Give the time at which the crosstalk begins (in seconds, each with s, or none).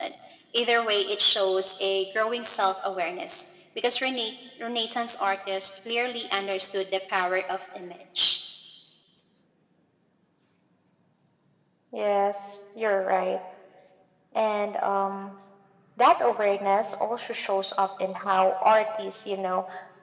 none